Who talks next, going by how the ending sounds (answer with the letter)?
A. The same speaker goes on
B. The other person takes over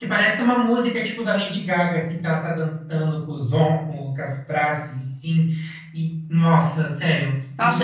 B